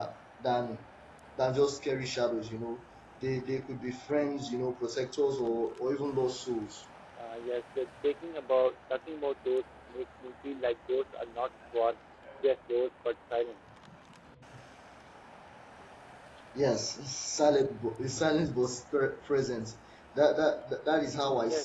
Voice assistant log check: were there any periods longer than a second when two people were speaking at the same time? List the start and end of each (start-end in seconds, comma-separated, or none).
none